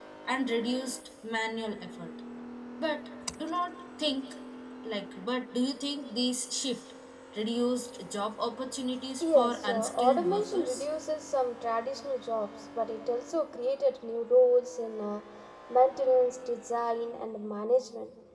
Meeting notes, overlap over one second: present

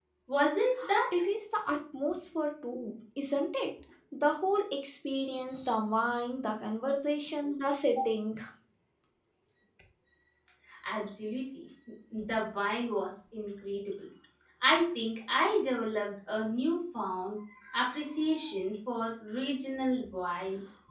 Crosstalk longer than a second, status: none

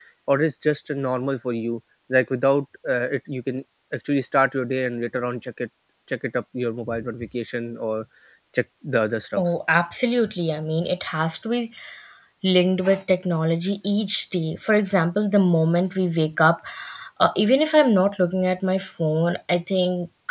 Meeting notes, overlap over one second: none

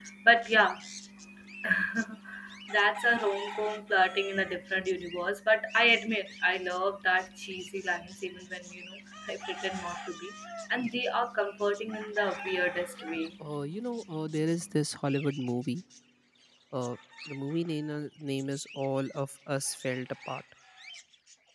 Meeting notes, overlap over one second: none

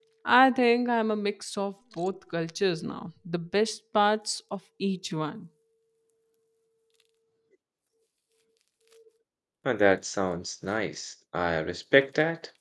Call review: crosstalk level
none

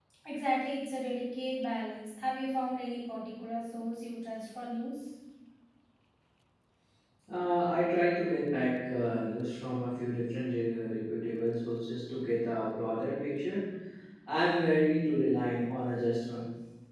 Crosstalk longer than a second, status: none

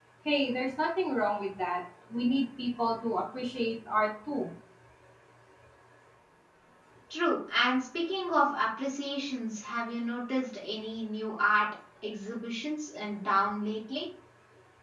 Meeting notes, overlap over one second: none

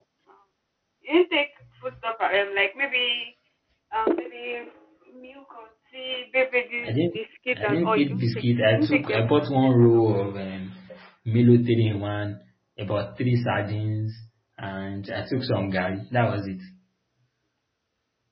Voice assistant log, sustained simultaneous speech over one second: present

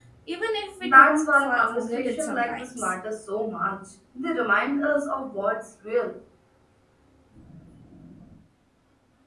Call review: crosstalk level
present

